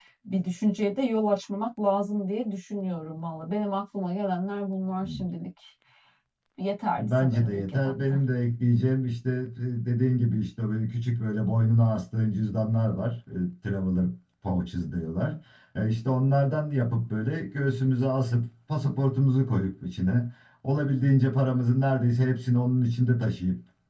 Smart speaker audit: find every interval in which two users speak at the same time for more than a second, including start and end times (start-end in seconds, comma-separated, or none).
7.0-8.2